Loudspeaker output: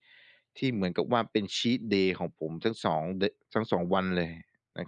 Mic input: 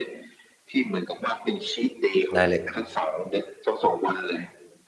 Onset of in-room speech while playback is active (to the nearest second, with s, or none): 2 s